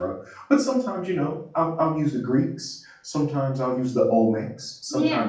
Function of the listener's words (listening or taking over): listening